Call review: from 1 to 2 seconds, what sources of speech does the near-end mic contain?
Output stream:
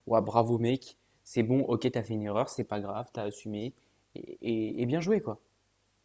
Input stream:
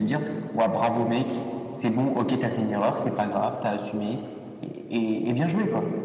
echo only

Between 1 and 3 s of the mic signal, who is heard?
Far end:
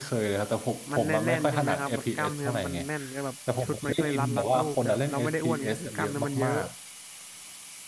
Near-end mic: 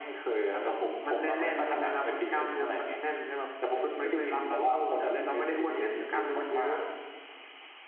echo only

